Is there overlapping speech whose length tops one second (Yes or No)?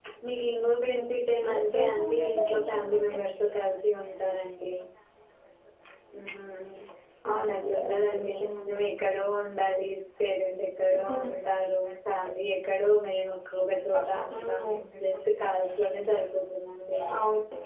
Yes